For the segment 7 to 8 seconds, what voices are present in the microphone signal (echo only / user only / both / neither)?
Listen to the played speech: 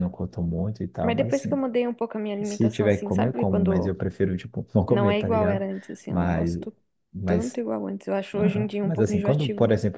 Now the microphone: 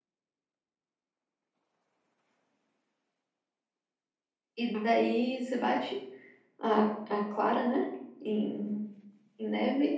user only